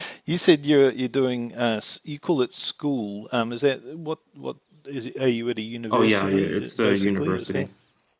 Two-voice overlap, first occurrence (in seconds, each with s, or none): 5.9 s